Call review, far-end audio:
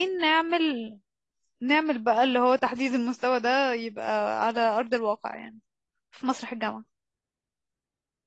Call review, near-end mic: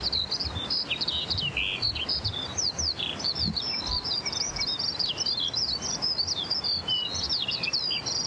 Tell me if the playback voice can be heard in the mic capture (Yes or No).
No